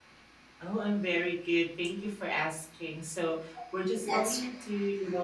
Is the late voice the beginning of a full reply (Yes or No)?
No